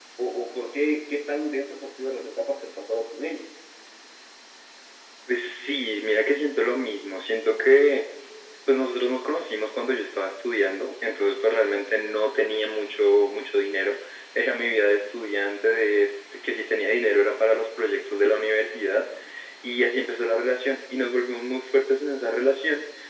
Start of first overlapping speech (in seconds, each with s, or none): none